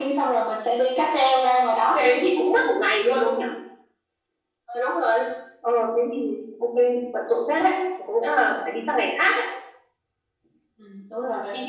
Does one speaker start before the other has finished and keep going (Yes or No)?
No